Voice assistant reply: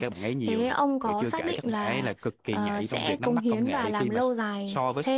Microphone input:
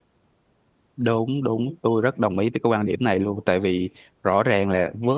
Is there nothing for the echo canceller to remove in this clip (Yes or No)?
Yes